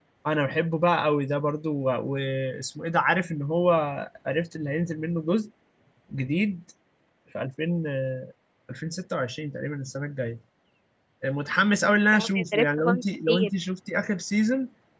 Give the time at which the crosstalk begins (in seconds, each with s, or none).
11.8 s